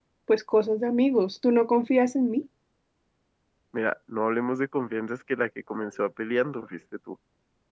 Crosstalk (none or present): none